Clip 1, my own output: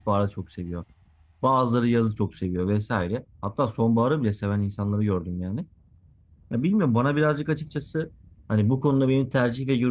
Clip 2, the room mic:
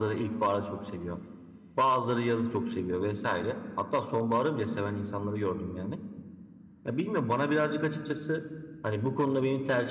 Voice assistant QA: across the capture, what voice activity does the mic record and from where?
echo only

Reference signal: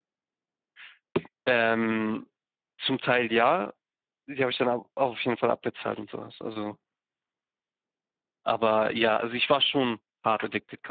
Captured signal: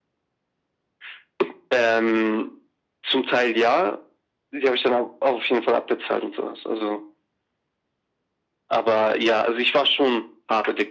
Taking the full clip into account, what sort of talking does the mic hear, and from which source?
echo only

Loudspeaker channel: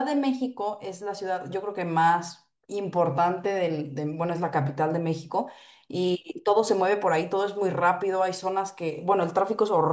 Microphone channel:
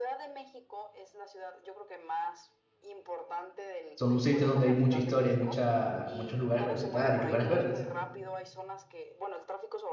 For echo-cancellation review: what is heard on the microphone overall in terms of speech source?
both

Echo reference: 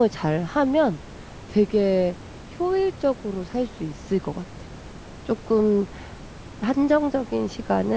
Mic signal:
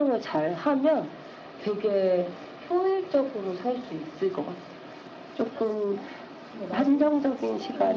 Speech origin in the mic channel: both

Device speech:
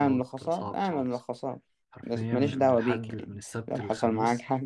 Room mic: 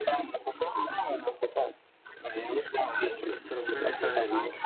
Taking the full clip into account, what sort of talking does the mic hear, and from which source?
both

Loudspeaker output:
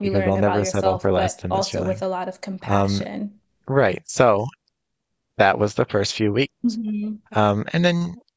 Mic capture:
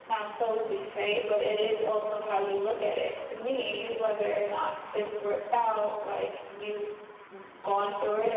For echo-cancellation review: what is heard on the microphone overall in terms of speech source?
user only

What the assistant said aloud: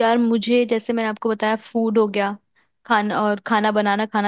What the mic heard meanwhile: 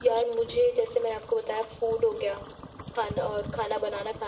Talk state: echo only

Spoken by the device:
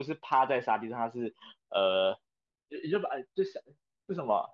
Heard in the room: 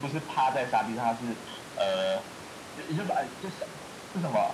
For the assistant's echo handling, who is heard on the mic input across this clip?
echo only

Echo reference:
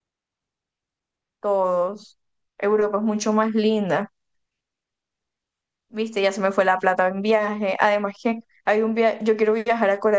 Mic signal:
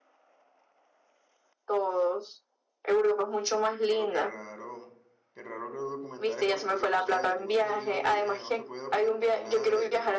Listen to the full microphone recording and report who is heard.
both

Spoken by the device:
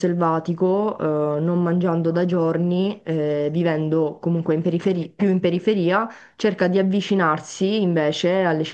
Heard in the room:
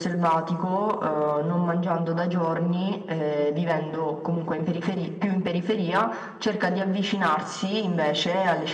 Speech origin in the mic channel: echo only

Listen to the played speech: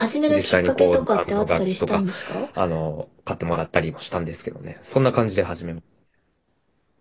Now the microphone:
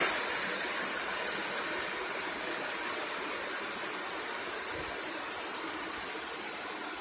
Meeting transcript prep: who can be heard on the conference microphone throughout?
neither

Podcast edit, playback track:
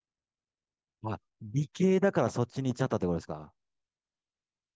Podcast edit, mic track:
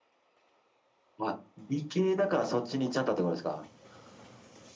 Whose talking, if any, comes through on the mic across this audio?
echo only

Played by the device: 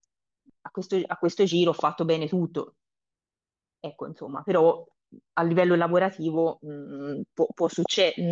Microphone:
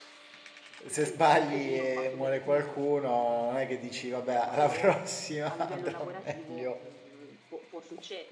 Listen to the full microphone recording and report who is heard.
both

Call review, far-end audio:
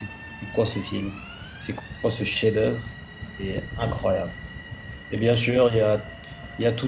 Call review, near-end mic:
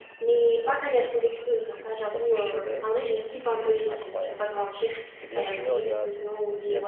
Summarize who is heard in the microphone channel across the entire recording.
both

